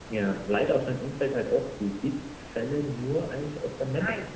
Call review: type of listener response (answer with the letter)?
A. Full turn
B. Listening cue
B